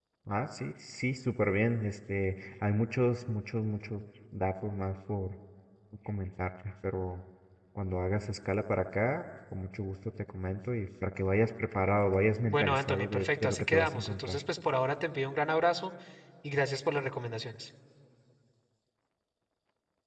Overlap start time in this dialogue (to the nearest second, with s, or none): 12 s